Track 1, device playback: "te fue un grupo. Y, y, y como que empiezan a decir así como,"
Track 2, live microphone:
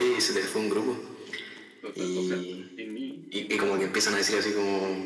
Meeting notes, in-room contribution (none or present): present